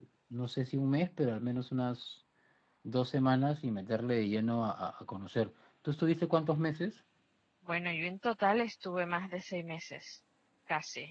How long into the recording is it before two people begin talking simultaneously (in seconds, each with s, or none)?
none